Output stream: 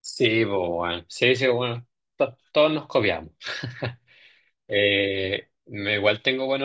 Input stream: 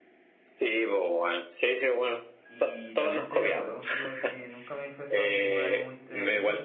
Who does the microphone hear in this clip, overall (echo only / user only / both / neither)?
both